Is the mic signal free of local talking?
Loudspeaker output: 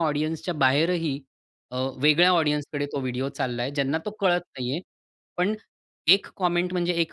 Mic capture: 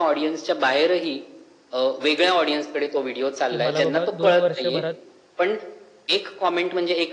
No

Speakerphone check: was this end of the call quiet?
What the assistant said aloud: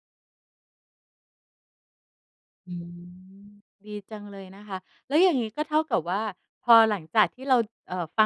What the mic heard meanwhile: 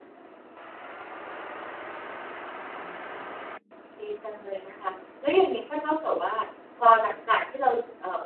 Yes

